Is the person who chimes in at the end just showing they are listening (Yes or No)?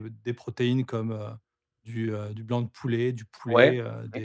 Yes